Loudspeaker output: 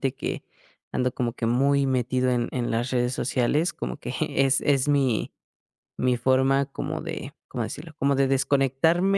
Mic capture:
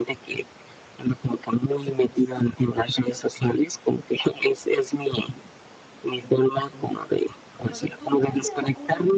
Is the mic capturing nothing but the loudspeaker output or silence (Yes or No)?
No